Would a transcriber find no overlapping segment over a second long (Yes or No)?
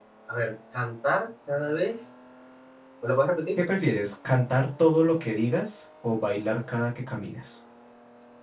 Yes